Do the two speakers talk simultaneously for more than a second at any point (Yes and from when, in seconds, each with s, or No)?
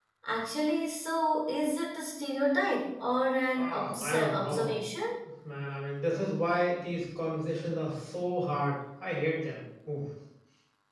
Yes, from 3.6 s